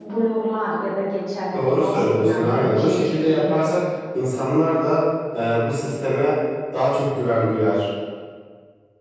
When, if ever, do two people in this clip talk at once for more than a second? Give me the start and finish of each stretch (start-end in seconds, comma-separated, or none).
1.5-3.6